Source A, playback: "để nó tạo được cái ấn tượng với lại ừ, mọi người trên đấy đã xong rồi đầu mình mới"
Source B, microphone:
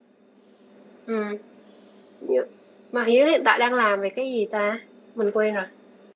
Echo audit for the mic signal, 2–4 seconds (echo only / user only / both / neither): user only